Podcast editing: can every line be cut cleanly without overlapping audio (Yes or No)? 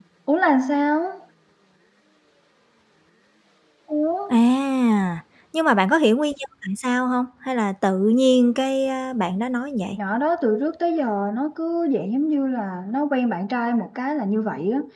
Yes